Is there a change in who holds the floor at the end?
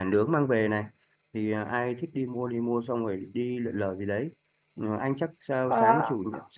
No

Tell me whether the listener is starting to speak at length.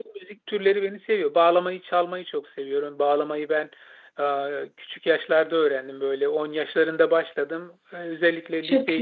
No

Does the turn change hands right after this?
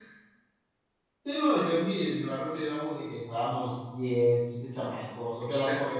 No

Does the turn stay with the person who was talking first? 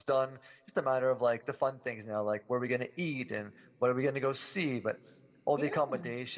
Yes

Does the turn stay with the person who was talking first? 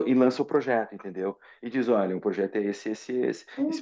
No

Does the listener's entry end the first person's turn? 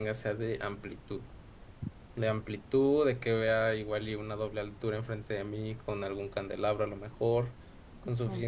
No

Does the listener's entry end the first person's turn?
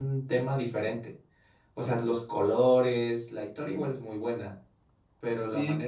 No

